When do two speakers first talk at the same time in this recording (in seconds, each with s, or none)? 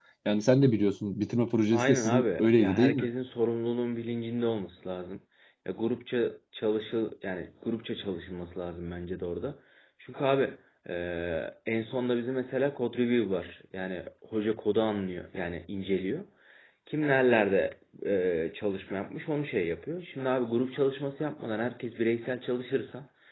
1.7 s